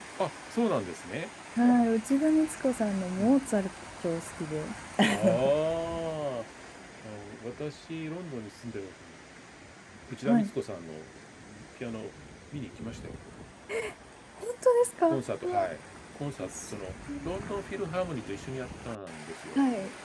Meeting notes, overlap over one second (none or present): none